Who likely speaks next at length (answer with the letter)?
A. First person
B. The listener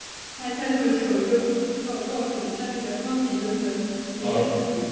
A